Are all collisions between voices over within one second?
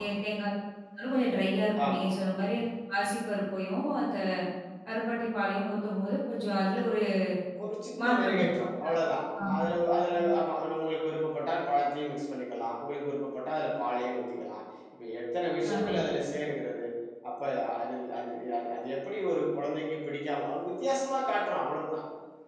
Yes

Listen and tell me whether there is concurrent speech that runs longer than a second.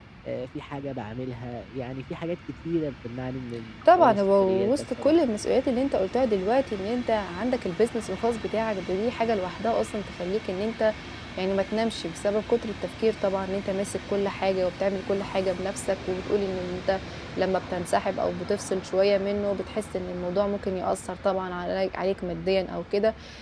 Yes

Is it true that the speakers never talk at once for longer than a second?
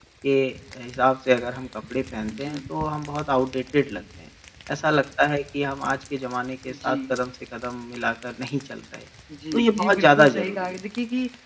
No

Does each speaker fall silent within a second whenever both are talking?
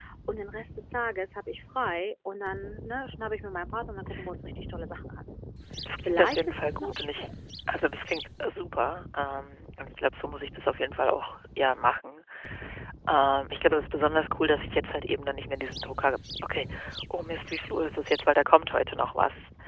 No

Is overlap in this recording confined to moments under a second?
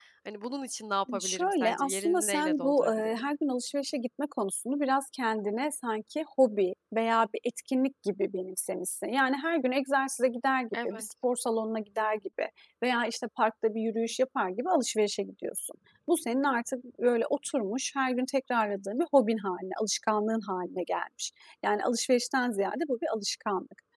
No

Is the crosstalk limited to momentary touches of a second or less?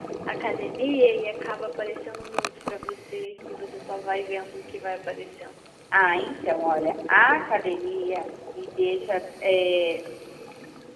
Yes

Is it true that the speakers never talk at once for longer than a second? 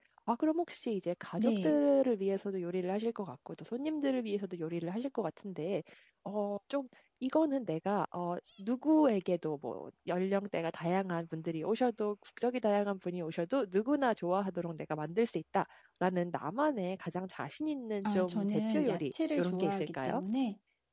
No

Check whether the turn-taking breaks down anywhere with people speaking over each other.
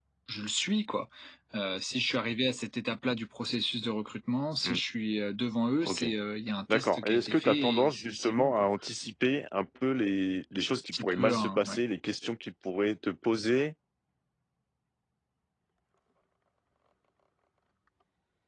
Yes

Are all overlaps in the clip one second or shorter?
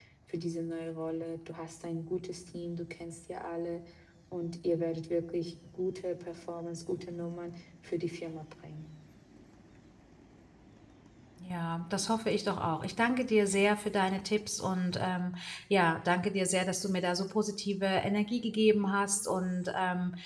Yes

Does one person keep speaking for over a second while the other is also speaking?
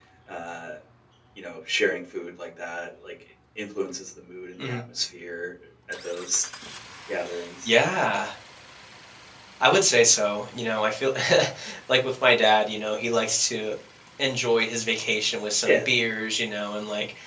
No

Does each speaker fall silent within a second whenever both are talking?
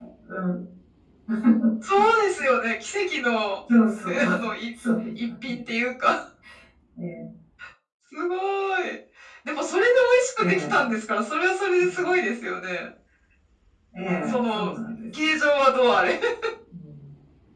Yes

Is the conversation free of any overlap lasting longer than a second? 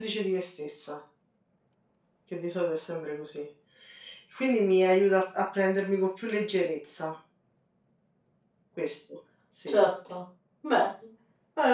Yes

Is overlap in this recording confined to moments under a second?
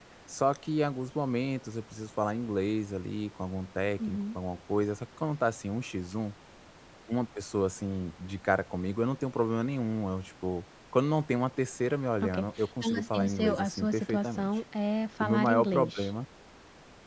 No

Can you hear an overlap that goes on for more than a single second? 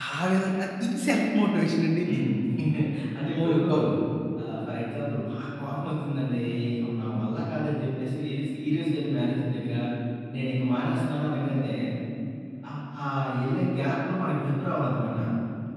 No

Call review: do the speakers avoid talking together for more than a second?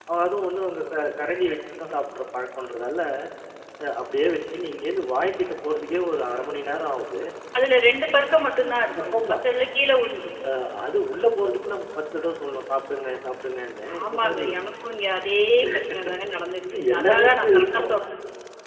No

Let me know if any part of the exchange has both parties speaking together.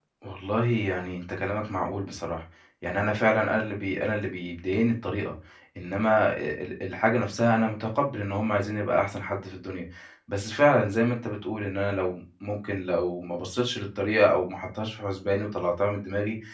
No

